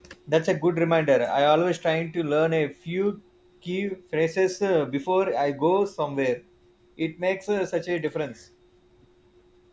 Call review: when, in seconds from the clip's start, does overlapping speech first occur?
none

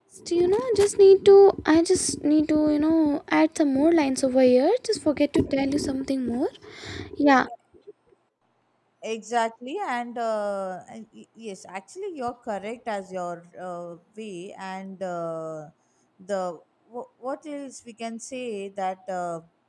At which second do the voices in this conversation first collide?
none

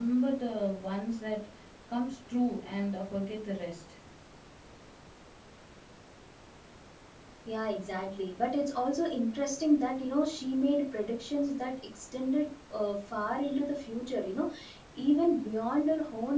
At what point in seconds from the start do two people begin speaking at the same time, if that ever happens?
none

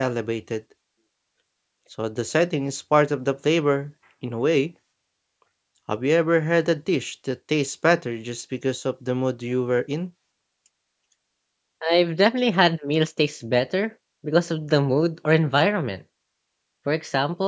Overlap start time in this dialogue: none

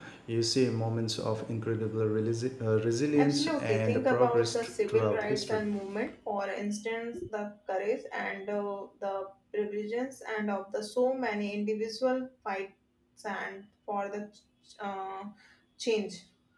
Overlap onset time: 3.1 s

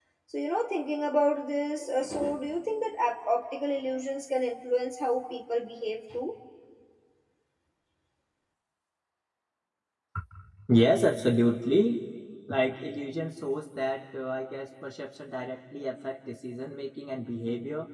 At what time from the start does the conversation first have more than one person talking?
none

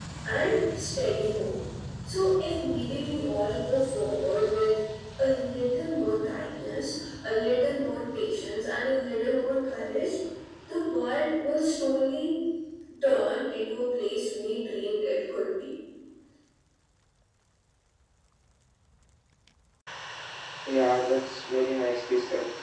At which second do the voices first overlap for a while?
none

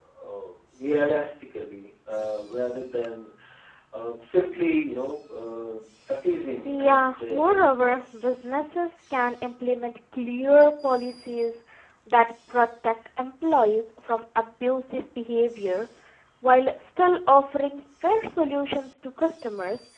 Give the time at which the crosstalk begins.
6.6 s

